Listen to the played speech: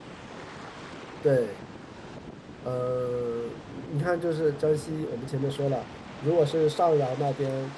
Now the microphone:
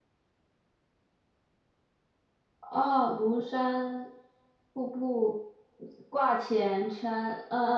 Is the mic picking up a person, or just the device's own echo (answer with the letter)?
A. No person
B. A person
B